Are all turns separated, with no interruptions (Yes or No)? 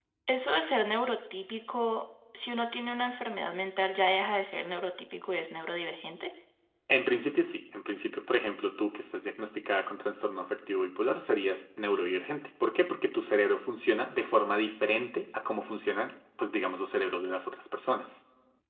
Yes